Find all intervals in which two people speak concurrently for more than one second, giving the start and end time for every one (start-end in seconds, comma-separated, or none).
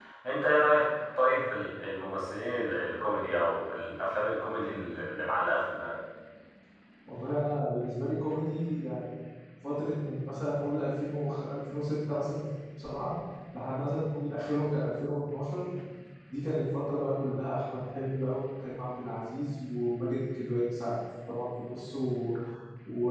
none